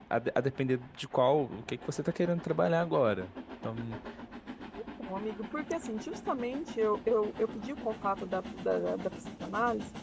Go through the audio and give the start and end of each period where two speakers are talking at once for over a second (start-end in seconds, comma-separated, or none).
none